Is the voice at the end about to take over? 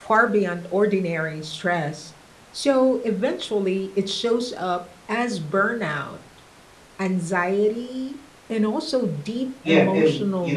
Yes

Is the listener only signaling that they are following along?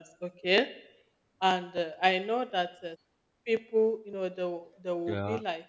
Yes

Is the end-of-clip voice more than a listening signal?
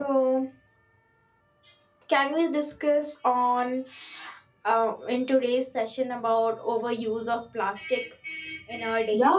Yes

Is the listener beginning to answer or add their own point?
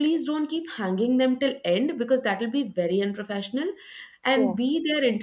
No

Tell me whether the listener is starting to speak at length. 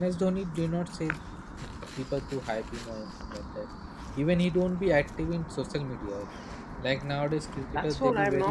Yes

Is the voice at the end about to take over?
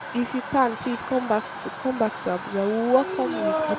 Yes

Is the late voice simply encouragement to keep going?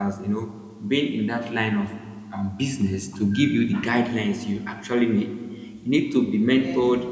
Yes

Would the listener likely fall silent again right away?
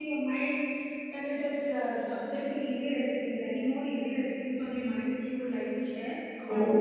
No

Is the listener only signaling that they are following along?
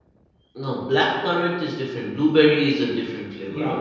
No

